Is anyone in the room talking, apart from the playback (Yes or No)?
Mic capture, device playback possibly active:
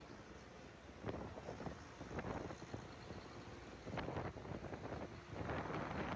No